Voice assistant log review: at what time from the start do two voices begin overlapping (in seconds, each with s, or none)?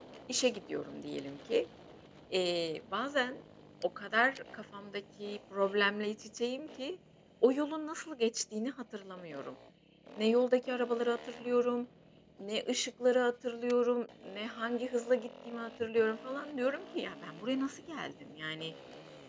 none